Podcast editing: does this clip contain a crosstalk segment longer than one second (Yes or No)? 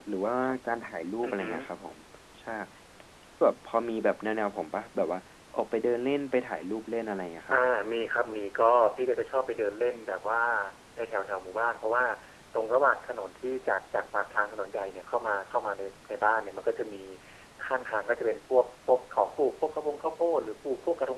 No